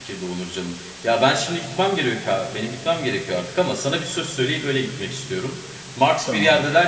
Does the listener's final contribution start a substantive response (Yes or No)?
No